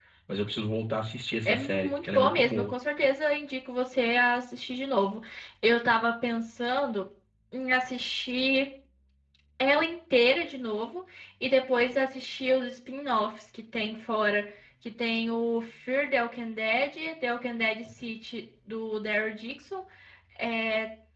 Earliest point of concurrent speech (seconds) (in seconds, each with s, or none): 1.4 s